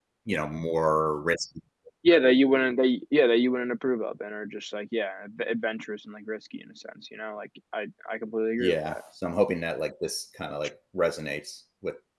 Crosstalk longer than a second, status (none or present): none